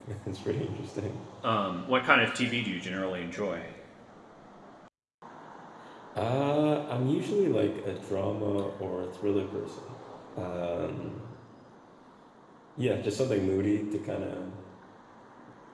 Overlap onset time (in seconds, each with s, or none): none